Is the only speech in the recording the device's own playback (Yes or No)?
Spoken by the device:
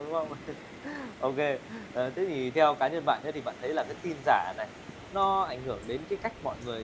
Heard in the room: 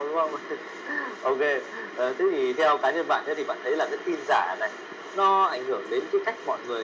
Yes